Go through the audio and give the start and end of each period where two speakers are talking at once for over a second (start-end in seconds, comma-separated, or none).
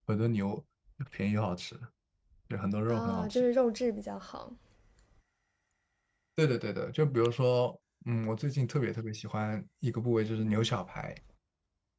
none